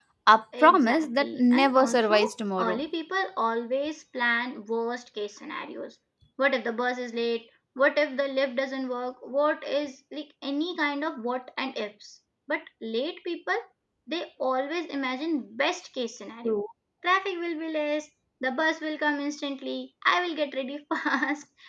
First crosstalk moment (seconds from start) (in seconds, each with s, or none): 0.6 s